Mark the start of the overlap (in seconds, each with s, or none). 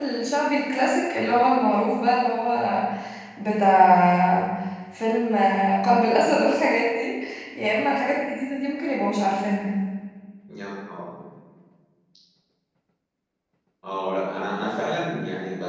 none